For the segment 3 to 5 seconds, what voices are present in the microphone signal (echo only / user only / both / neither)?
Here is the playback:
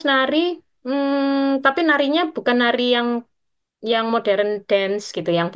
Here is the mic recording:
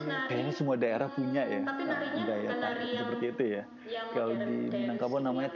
both